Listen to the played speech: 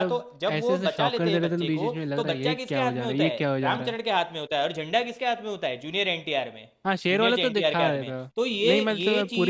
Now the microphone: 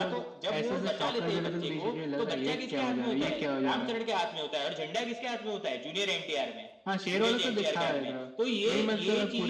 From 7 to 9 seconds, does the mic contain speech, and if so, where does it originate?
echo only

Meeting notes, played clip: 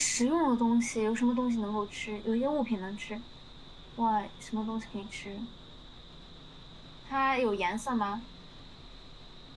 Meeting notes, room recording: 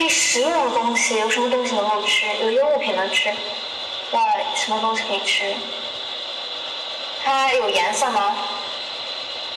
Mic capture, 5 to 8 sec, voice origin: echo only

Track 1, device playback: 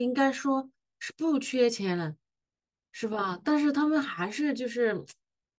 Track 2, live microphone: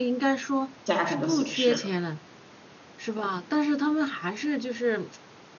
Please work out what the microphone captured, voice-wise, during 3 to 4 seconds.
echo only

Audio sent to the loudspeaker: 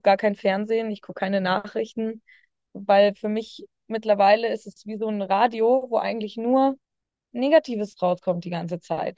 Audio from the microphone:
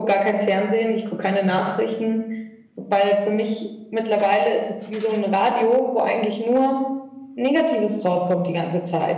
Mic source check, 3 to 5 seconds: echo only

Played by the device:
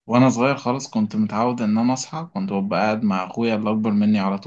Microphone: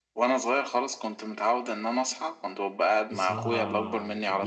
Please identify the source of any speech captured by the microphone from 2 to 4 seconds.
both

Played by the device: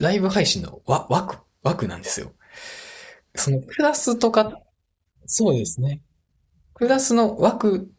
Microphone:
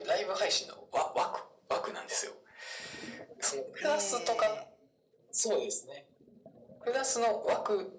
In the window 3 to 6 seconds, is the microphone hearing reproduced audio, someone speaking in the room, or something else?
both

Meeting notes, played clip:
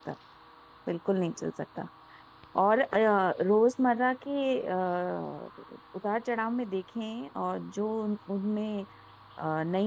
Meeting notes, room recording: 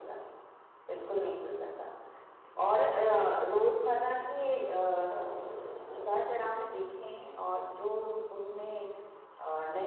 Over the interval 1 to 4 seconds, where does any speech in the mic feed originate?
echo only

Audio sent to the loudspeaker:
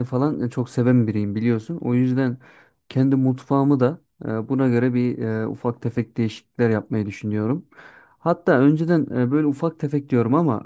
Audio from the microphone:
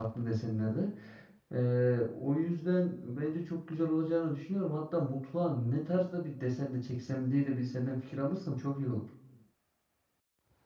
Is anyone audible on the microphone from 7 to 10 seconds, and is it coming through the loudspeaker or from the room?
user only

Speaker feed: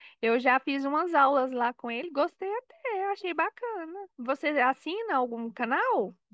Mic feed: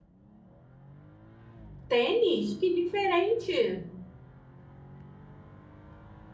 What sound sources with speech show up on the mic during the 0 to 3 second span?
user only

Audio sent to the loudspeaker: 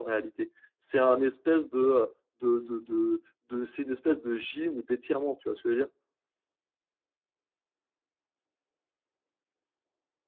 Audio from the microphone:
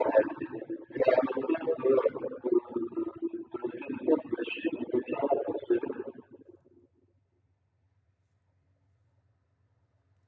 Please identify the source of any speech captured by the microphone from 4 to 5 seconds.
echo only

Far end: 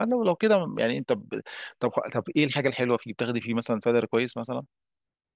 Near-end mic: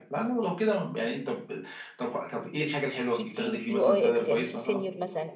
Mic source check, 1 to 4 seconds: both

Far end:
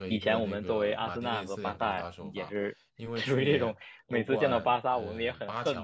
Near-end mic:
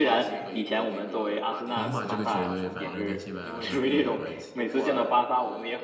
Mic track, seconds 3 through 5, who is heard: both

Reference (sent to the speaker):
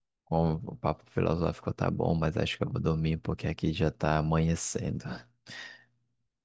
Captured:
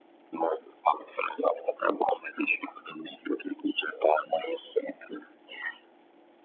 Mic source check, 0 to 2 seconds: echo only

